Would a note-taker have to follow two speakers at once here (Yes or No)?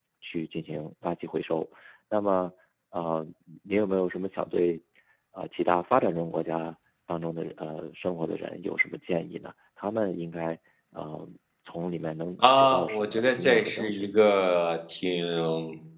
Yes